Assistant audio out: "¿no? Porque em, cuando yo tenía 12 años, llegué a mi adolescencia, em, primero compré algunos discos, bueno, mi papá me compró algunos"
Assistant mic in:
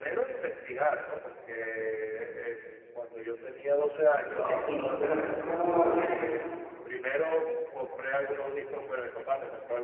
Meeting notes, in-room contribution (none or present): present